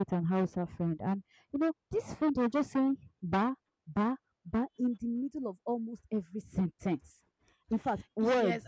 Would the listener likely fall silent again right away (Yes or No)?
No